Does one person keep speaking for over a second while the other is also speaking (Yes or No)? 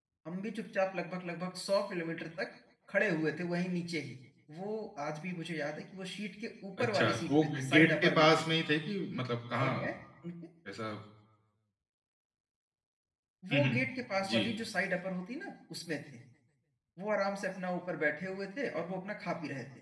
Yes